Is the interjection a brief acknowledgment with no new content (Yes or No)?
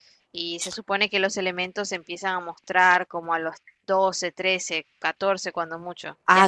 No